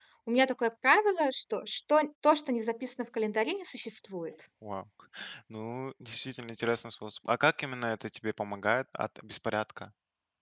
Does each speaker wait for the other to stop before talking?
Yes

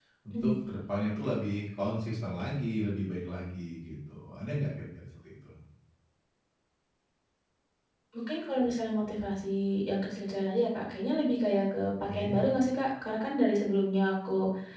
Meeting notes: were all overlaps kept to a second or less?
Yes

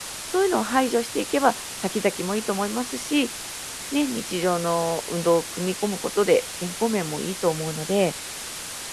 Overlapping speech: No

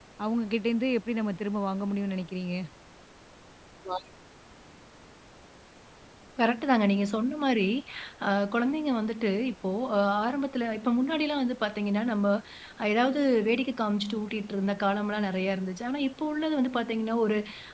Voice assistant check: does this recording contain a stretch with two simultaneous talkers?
No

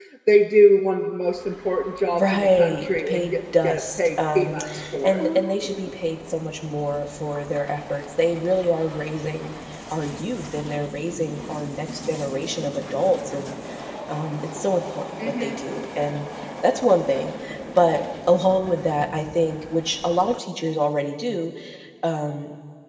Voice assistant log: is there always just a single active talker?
No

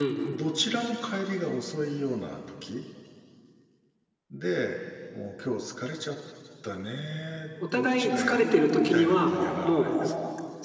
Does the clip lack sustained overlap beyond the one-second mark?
No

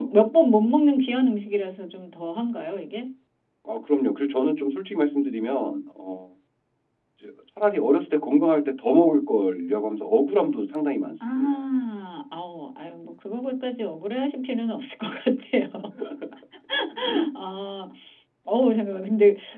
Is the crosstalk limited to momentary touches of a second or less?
Yes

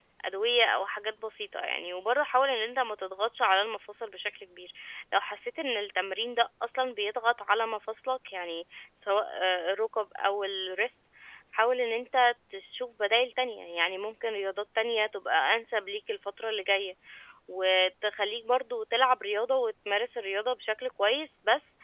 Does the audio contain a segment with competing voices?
No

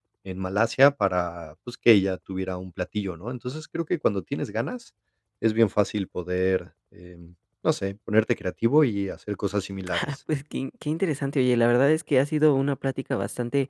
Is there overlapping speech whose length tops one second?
No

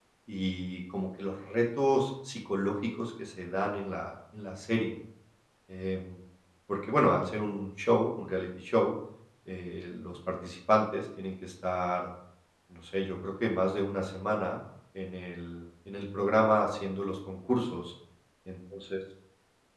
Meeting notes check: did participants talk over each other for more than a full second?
No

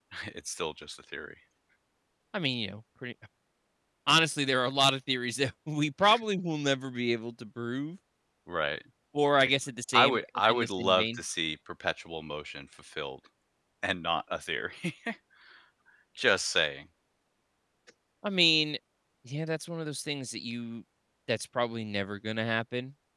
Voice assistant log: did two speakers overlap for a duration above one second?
Yes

